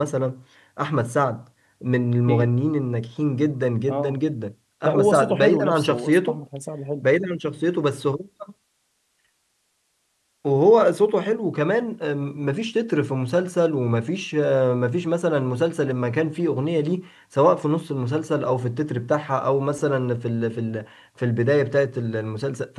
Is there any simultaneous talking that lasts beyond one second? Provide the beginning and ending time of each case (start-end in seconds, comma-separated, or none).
4.8-6.4